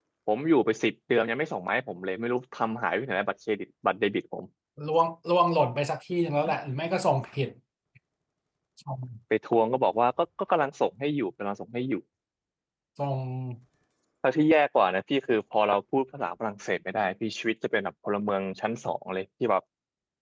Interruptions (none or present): none